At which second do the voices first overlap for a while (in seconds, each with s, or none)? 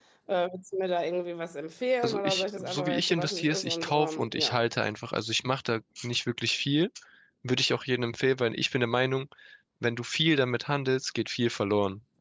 2.0 s